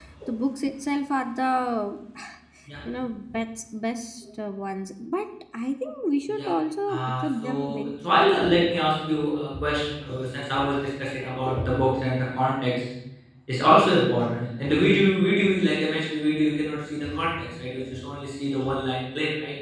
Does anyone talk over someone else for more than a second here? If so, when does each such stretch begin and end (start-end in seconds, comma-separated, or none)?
6.9-8.6